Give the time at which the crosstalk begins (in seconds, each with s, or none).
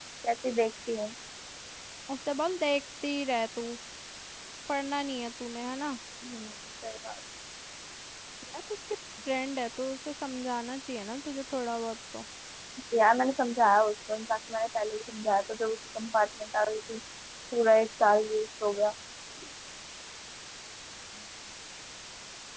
none